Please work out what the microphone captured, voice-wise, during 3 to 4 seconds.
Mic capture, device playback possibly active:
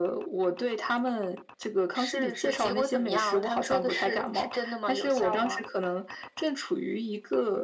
echo only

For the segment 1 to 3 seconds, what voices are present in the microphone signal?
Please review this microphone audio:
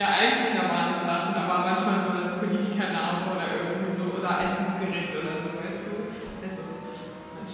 user only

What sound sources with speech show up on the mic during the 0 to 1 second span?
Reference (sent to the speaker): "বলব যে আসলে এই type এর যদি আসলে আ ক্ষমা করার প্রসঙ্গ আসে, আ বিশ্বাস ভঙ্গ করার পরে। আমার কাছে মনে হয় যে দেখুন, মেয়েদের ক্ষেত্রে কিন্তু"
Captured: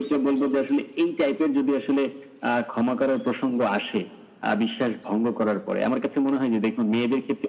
echo only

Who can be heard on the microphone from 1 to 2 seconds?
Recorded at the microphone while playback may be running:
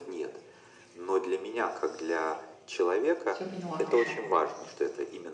echo only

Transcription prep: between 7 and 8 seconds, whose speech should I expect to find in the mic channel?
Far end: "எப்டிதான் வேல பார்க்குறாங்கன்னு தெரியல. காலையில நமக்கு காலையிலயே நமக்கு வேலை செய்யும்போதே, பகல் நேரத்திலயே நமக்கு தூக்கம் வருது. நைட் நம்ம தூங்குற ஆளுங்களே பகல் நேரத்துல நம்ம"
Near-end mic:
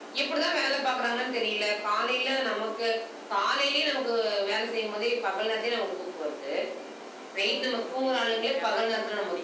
both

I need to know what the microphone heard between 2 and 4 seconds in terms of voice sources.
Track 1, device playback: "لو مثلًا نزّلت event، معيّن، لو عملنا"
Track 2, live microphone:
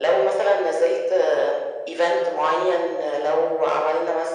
echo only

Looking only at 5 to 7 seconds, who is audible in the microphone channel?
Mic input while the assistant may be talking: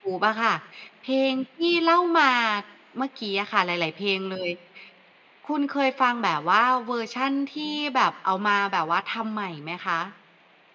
user only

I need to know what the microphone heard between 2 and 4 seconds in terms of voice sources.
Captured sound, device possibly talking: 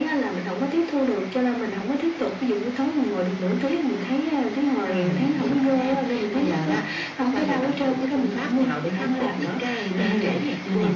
echo only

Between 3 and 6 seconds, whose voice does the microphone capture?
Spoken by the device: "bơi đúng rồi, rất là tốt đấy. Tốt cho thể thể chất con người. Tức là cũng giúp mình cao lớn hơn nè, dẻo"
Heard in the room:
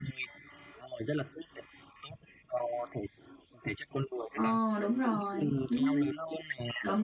both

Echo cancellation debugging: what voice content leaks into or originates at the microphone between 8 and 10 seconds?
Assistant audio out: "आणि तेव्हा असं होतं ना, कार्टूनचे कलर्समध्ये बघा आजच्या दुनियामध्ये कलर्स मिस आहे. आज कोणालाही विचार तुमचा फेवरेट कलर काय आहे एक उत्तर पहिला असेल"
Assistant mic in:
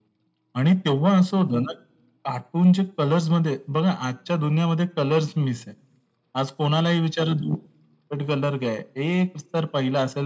echo only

